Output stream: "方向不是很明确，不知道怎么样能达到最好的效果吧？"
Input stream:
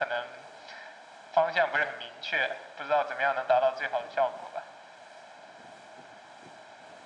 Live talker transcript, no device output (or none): none